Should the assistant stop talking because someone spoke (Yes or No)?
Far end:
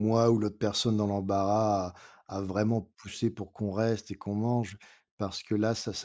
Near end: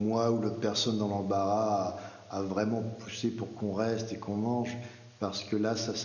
No